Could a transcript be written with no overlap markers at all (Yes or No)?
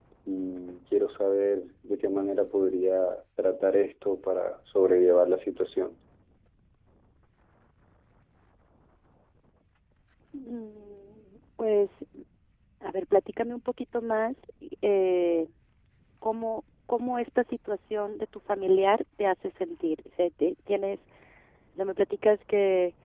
Yes